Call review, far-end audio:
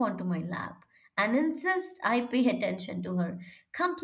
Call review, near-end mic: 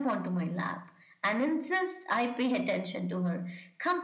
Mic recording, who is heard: echo only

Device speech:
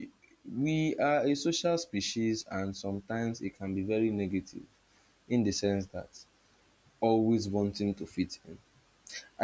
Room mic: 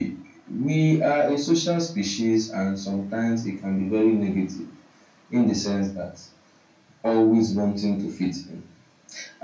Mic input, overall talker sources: echo only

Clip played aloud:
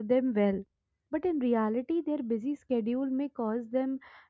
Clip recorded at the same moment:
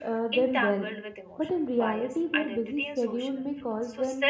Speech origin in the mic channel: both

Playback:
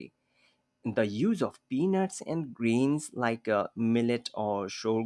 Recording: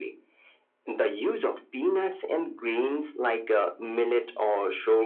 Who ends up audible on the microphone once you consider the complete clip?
echo only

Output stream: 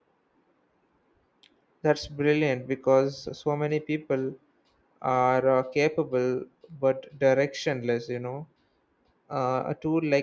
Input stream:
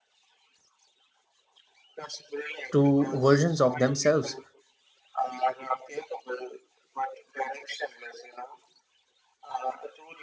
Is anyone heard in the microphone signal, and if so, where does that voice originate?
both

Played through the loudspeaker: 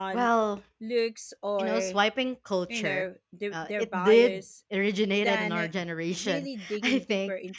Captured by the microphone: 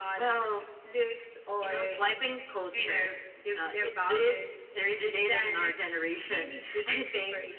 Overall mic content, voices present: echo only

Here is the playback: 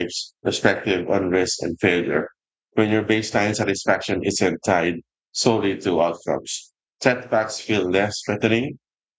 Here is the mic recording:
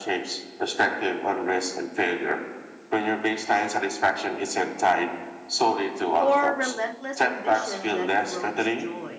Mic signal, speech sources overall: both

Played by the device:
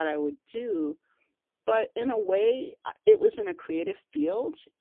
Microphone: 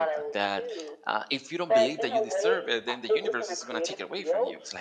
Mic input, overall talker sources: both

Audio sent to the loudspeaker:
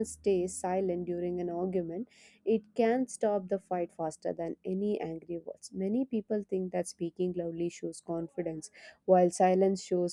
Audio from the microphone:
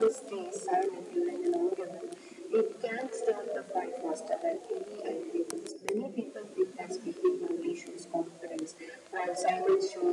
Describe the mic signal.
echo only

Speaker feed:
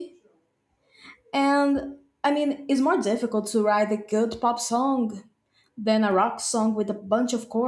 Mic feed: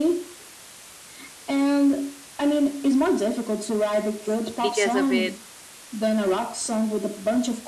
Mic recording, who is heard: both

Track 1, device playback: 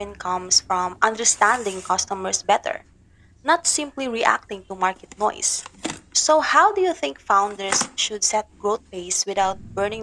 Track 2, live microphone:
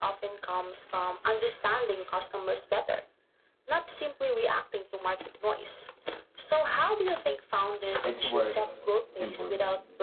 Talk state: both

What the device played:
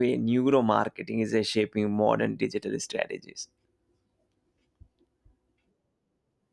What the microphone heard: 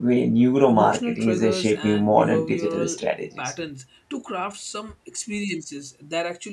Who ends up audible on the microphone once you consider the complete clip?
both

